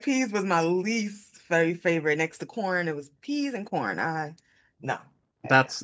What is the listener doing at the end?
taking over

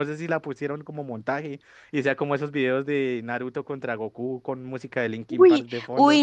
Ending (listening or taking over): taking over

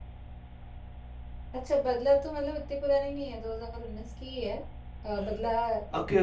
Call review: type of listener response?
taking over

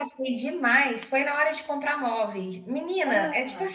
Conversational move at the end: listening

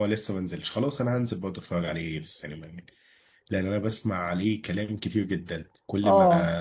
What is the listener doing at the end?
listening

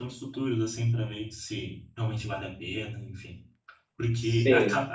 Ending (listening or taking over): listening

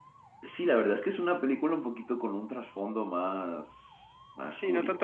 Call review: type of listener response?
taking over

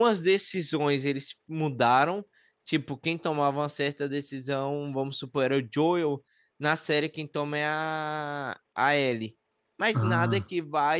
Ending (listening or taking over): listening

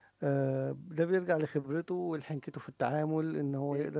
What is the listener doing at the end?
listening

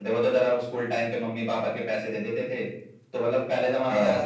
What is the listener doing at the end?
listening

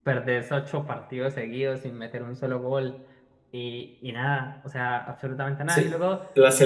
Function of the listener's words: taking over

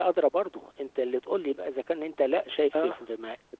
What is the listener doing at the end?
listening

